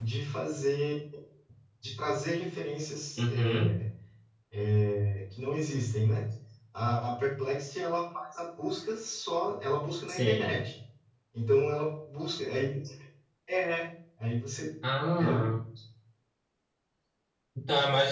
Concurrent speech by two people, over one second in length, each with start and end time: none

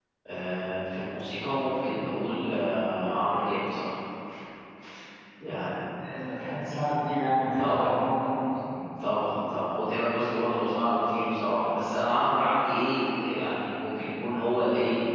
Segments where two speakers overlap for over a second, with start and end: none

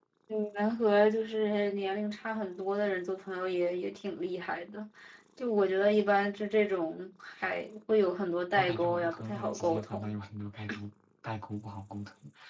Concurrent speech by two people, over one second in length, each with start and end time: 8.5-10.1

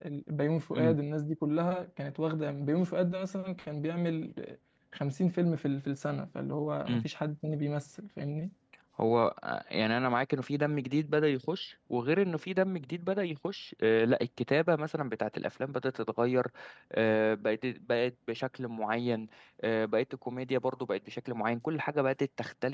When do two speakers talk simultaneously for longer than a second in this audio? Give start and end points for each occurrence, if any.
none

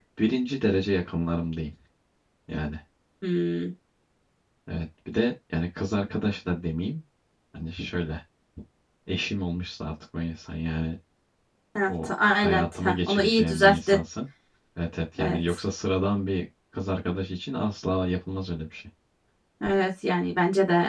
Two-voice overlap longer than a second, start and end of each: 11.9-14.0

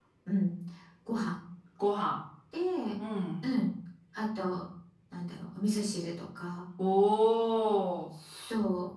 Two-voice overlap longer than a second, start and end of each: none

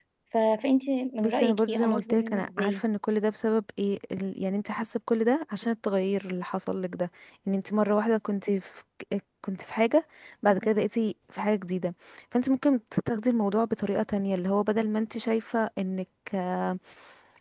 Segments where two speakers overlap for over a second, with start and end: 1.2-2.8

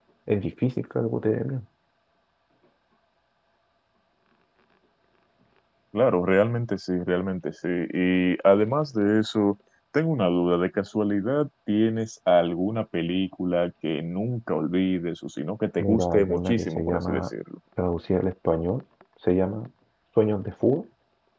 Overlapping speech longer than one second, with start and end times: 15.8-17.2

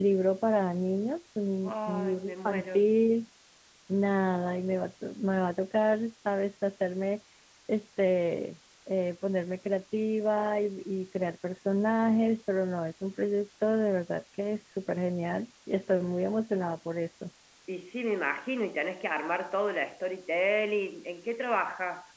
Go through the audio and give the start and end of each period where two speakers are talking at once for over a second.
1.6-2.9

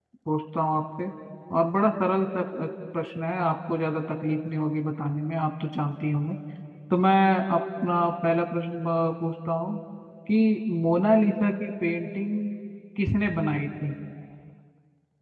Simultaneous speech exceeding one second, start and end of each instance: none

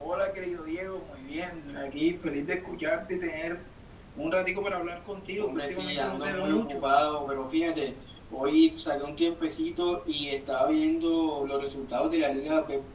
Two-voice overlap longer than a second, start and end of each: 5.4-6.8

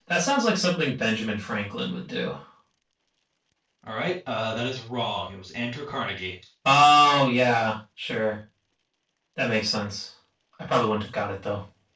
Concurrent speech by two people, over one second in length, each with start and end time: none

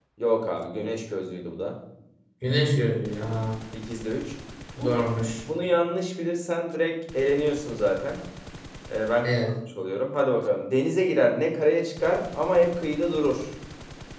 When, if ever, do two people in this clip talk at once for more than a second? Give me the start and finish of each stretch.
none

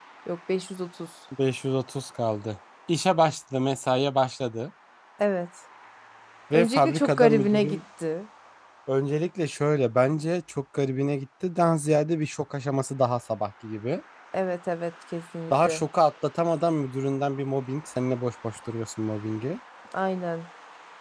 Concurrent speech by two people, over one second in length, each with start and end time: 6.5-7.8

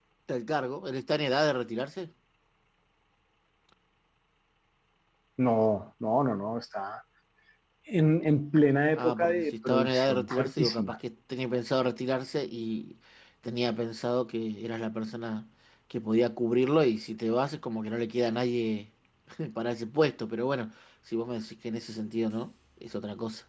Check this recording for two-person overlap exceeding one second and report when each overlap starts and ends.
9.0-11.0

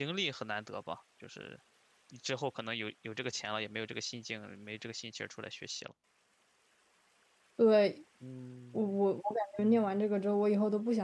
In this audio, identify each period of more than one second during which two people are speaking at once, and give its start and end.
none

